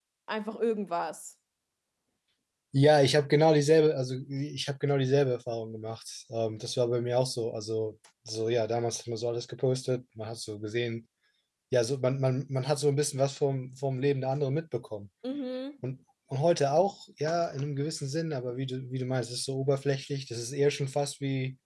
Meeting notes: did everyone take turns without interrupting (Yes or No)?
Yes